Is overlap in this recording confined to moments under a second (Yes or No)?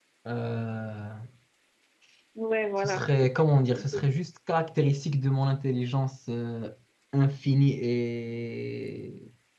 No